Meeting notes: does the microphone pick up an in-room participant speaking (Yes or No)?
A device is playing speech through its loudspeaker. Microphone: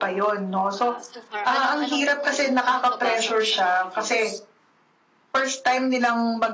Yes